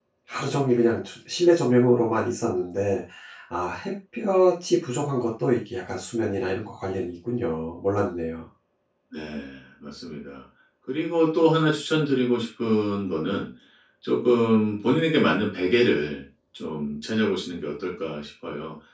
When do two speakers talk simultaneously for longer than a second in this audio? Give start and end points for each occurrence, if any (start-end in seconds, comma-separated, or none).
none